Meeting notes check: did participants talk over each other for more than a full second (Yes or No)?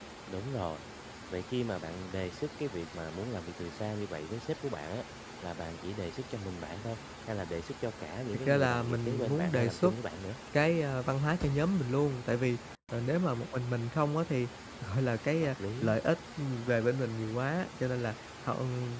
Yes